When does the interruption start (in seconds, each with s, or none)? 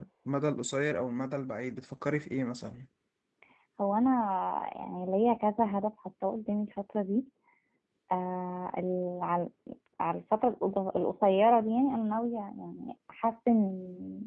none